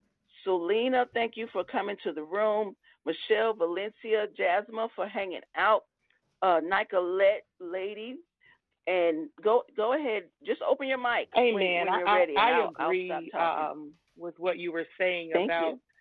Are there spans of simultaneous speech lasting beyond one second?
Yes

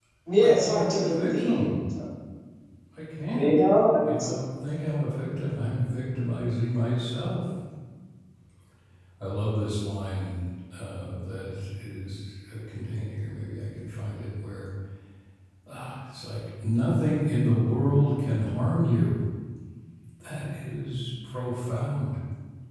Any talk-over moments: Yes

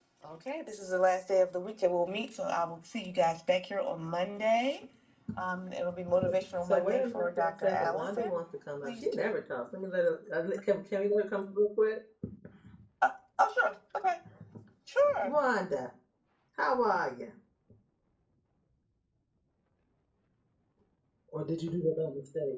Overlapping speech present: Yes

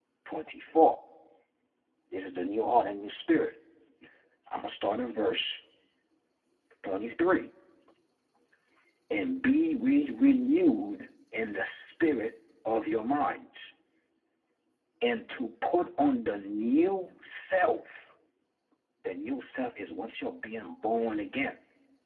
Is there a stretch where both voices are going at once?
No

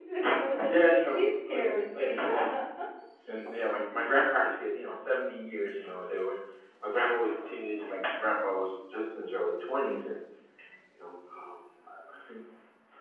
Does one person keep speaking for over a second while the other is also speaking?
Yes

